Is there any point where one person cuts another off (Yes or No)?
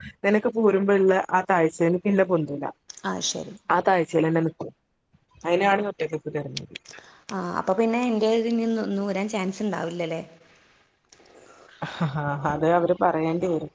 No